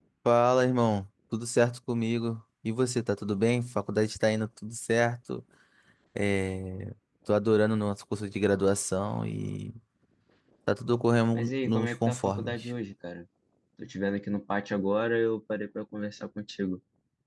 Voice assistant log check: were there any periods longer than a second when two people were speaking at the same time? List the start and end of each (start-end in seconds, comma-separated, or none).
11.3-12.6